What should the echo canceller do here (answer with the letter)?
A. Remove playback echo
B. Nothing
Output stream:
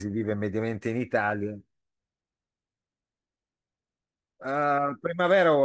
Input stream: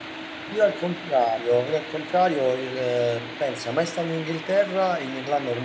B